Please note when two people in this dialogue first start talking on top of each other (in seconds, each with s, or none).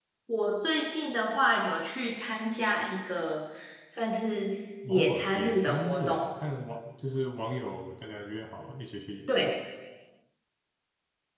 4.9 s